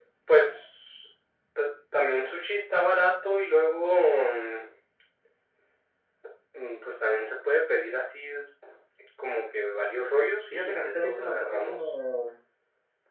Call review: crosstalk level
present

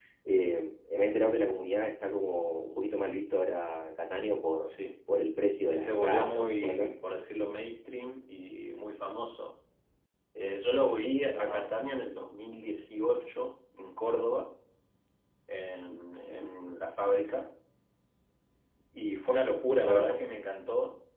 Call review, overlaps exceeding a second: present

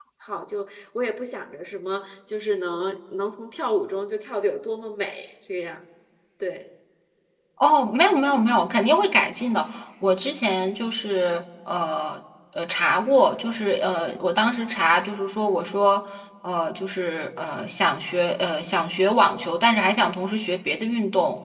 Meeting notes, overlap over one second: none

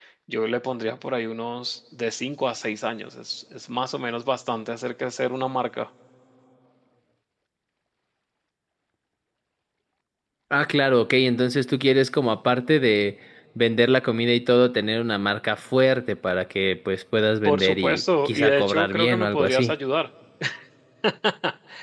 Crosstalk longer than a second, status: present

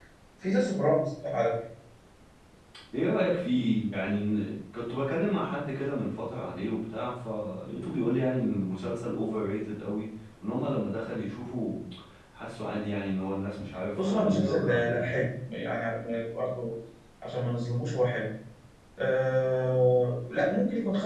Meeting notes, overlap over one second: present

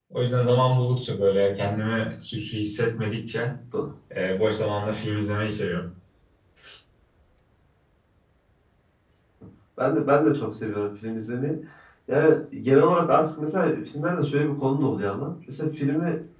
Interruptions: none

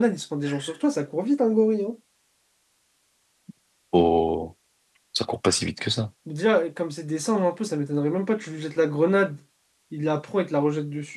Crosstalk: none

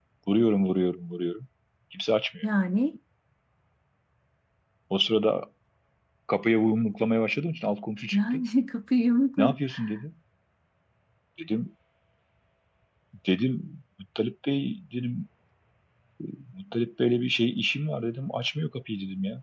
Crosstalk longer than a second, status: none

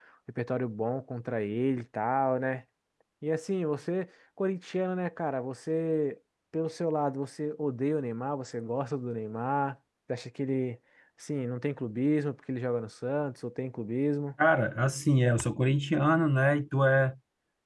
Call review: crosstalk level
none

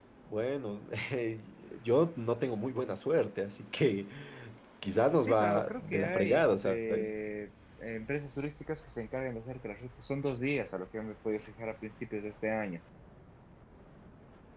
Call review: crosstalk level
present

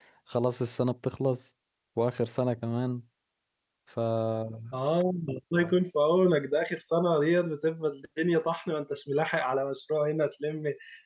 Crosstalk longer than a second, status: none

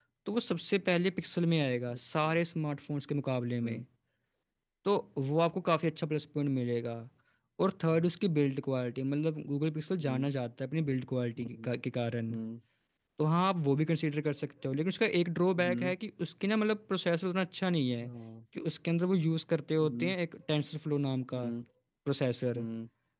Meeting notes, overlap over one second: none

